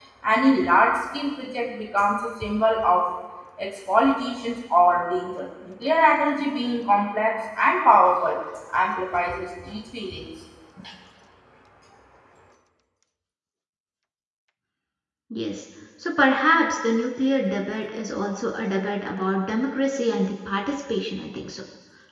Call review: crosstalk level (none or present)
none